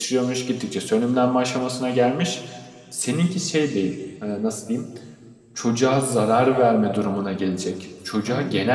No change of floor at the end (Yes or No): Yes